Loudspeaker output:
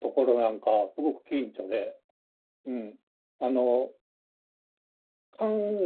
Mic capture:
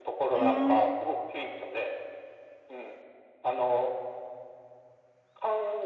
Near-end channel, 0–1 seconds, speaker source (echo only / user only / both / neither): both